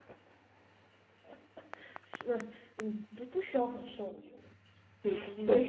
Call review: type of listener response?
taking over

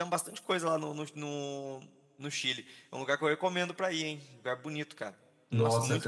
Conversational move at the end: taking over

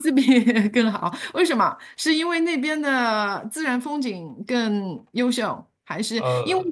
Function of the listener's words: listening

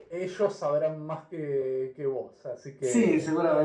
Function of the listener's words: taking over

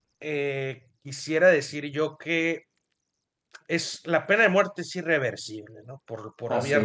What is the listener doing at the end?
listening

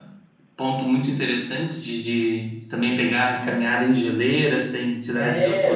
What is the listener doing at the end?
taking over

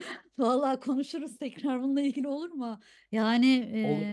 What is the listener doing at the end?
listening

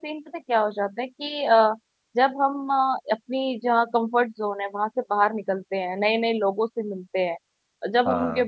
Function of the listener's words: listening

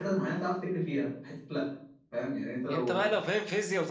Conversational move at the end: taking over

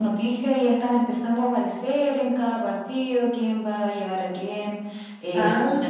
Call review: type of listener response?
listening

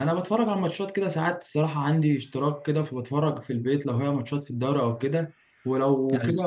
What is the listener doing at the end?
listening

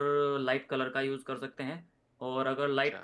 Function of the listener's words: listening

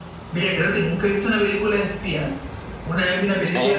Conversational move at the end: listening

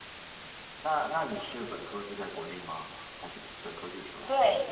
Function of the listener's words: taking over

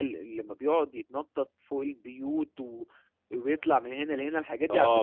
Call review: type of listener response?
taking over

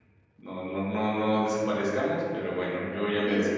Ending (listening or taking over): listening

